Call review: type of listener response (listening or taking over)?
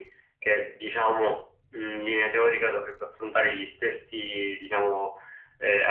listening